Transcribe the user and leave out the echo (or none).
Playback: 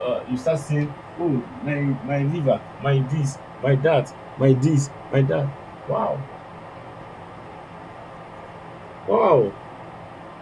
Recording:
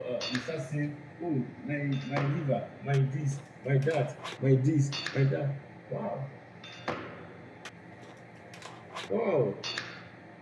none